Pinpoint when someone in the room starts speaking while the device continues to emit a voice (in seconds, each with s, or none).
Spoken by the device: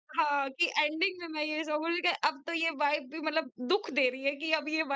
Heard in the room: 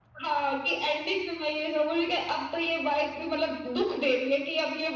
none